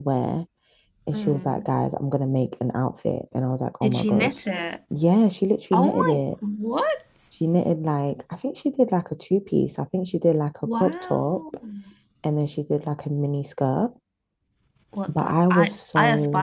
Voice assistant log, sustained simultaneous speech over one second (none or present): present